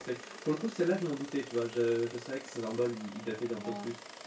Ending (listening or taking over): listening